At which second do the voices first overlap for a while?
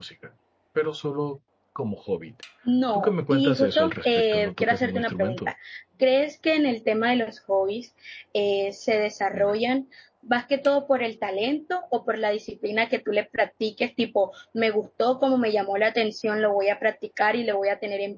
2.9 s

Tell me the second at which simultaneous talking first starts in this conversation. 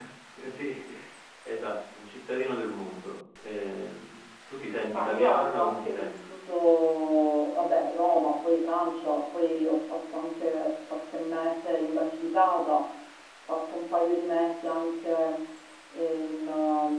4.9 s

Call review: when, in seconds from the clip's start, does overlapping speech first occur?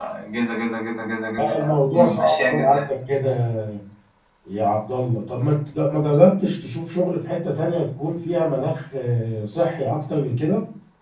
1.4 s

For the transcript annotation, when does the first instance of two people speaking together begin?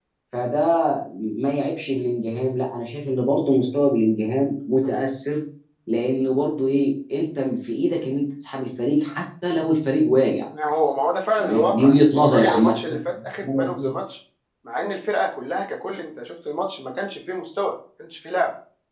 11.4 s

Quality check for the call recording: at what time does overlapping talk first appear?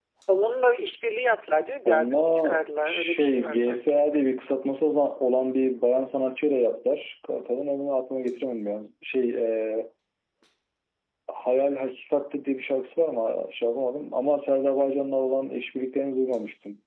1.8 s

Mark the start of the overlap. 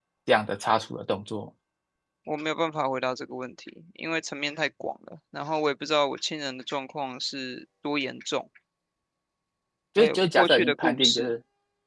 10.0 s

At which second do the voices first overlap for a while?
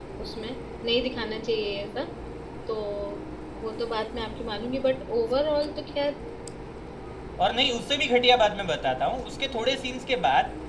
none

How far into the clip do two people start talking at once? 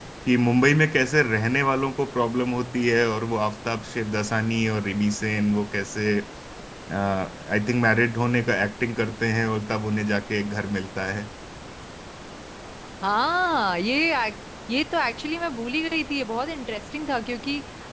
none

